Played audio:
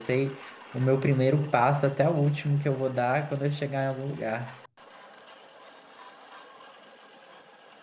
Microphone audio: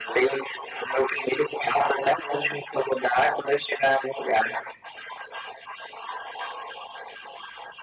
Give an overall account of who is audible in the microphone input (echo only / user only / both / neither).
echo only